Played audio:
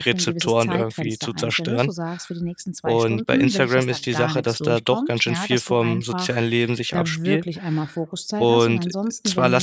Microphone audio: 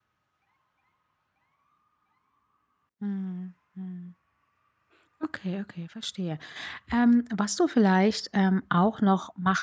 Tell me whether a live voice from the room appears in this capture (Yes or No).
Yes